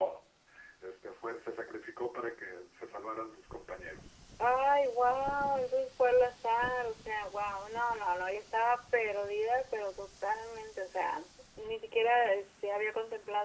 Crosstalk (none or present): none